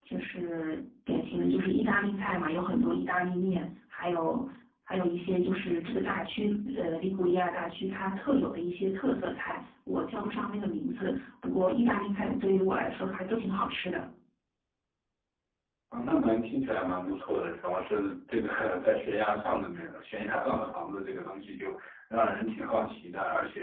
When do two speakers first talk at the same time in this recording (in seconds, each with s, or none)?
none